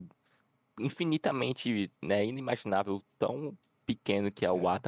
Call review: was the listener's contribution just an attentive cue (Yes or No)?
Yes